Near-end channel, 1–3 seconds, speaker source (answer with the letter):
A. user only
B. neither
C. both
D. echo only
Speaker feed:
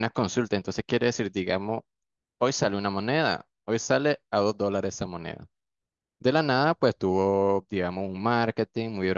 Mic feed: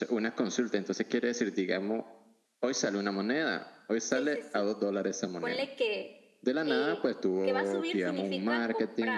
D